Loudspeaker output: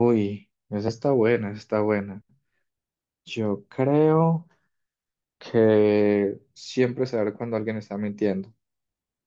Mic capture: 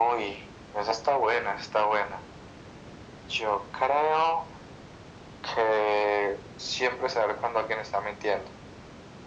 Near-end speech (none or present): none